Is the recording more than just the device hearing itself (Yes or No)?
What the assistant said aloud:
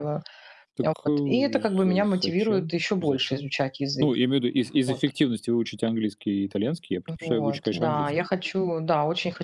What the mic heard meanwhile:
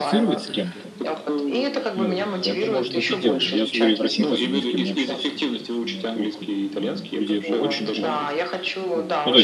Yes